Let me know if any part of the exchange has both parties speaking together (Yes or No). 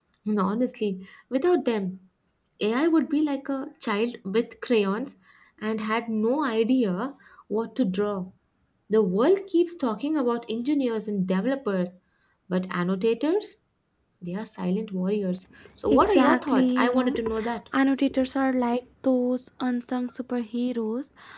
Yes